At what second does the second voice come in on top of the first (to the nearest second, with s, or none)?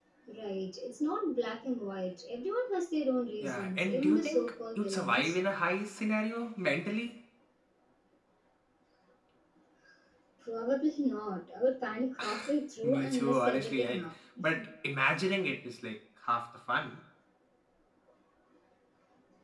3 s